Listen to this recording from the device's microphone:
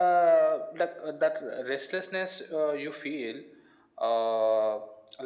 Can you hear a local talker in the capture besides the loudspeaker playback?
No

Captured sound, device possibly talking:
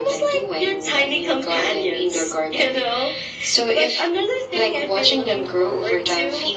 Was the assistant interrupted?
No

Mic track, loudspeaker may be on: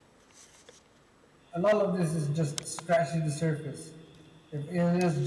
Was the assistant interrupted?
Yes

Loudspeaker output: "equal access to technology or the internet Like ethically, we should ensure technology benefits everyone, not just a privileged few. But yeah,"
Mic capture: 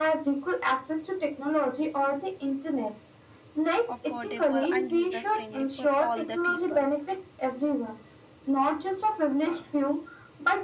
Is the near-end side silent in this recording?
No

